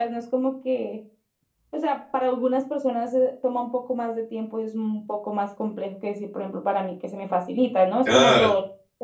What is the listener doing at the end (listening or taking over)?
listening